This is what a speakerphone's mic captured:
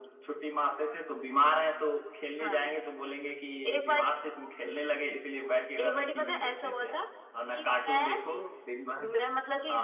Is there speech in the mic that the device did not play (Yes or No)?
No